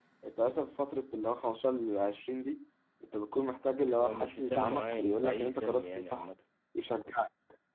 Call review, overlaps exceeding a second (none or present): present